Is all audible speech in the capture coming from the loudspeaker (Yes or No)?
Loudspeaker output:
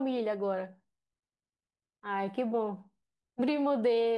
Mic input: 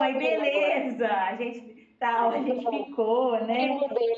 No